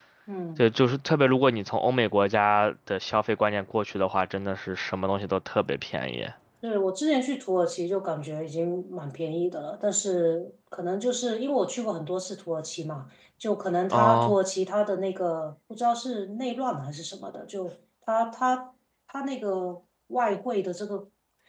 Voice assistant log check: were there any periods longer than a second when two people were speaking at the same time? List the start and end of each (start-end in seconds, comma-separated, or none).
none